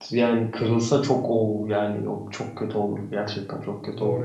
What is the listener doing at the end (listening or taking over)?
taking over